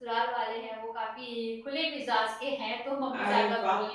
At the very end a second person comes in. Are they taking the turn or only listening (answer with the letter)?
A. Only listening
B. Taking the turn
A